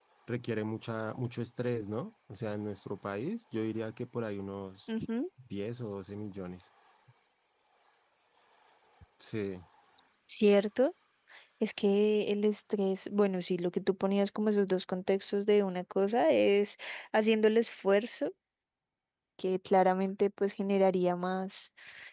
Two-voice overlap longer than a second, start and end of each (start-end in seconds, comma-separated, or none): none